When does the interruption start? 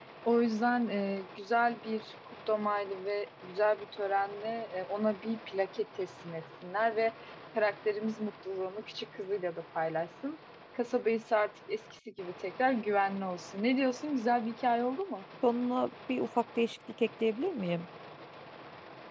none

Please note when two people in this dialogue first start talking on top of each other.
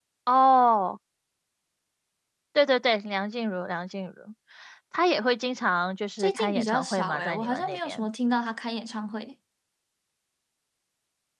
6 s

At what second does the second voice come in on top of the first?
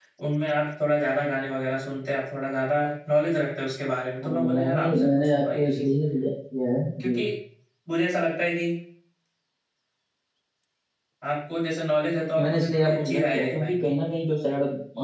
4 s

